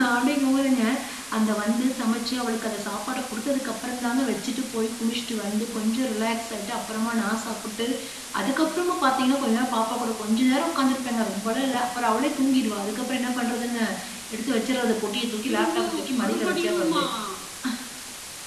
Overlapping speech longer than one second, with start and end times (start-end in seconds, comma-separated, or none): 15.4-17.0